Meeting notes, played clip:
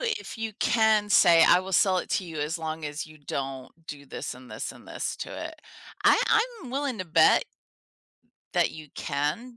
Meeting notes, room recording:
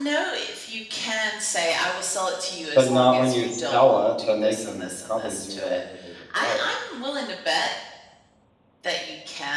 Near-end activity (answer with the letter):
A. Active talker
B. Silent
A